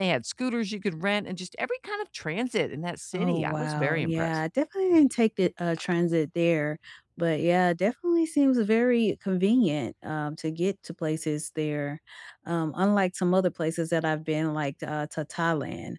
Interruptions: present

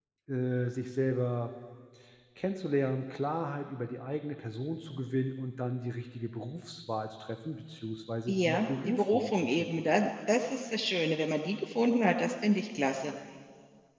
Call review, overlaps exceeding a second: present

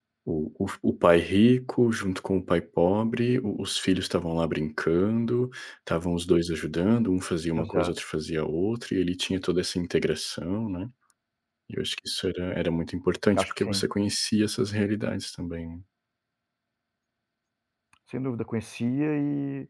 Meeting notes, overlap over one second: none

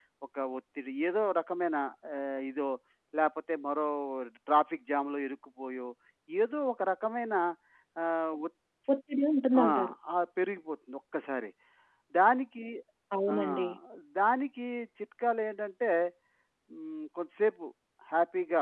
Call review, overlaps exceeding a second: none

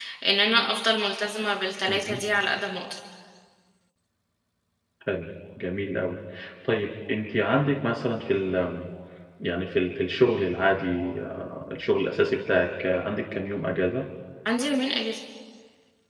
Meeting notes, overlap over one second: none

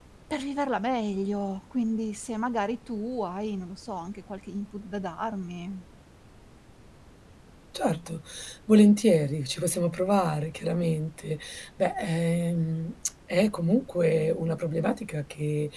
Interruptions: none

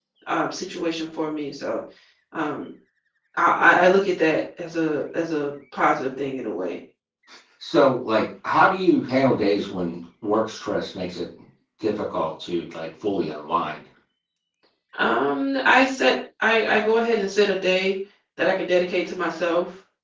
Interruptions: none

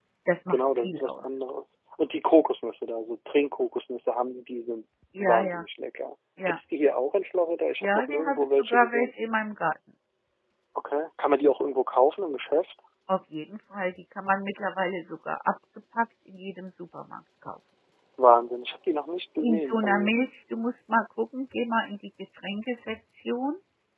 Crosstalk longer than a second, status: present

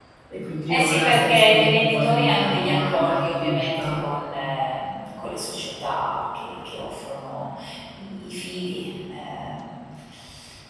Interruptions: present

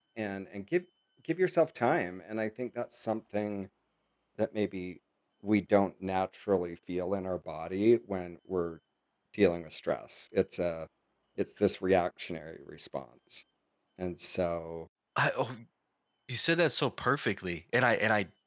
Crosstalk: none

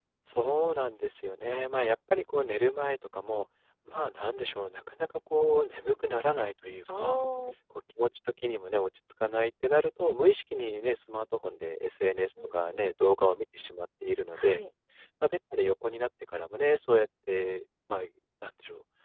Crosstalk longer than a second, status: none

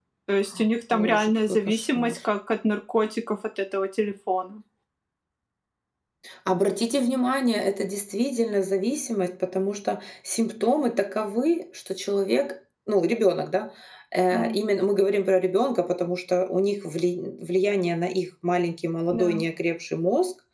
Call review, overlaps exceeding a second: present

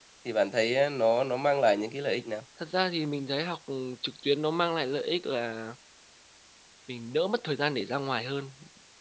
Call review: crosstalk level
none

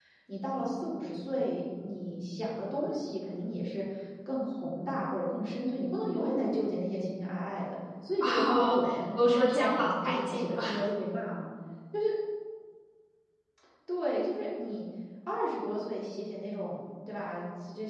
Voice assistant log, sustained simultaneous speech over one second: present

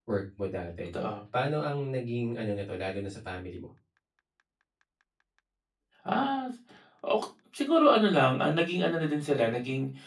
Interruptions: none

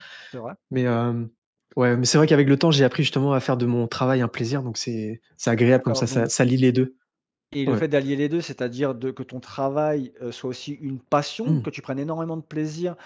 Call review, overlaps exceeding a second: none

